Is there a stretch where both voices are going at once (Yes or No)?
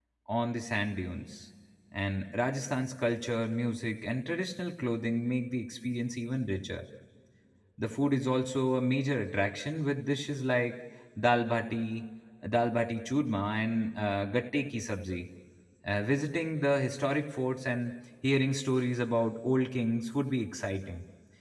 No